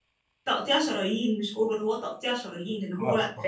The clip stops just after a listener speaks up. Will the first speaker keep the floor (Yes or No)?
Yes